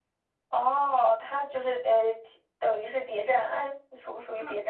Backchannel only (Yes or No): No